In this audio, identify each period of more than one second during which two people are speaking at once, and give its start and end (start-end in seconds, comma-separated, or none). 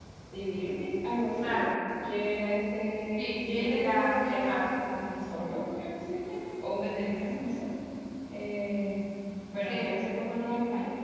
3.2-4.6